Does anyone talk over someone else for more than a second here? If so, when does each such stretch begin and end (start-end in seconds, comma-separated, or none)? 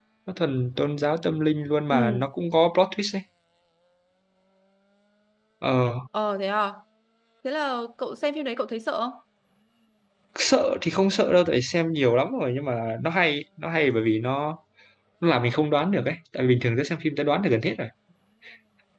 none